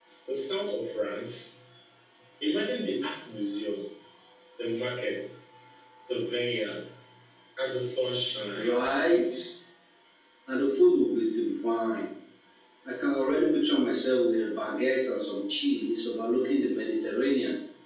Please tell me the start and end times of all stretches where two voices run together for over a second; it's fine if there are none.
none

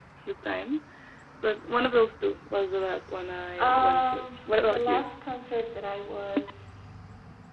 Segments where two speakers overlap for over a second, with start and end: 3.6-5.0

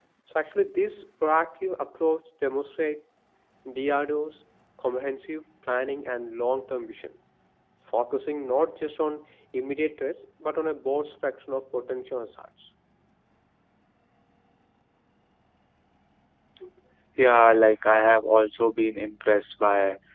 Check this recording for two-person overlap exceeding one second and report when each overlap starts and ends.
none

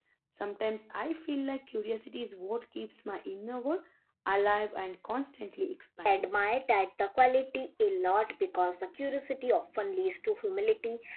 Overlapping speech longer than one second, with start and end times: none

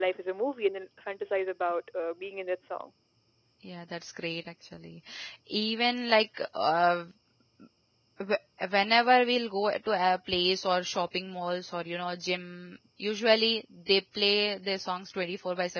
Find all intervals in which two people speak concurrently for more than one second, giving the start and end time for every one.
none

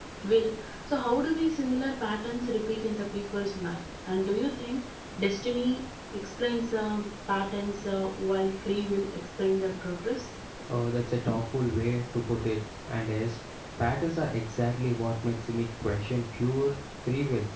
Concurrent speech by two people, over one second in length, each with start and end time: none

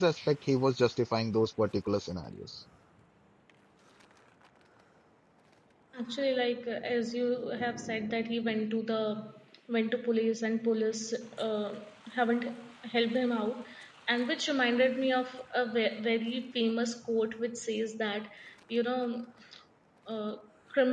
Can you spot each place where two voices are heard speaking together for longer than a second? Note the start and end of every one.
none

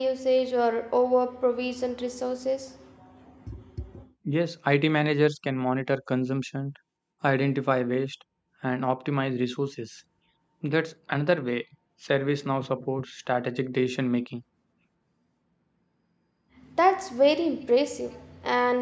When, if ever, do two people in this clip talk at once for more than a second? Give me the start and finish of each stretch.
none

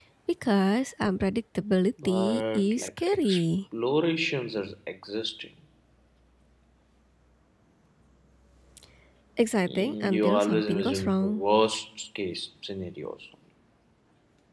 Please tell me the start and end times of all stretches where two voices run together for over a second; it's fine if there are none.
2.0-3.4, 9.7-11.4

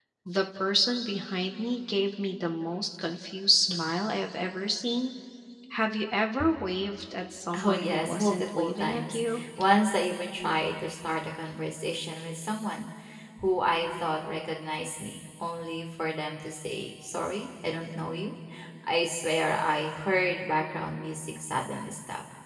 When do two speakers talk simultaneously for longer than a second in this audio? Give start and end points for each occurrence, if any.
7.6-9.4

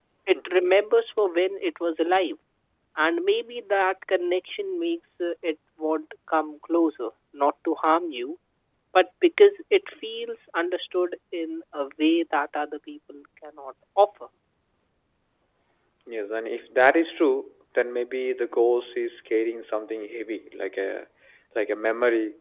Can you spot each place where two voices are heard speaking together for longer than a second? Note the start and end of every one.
none

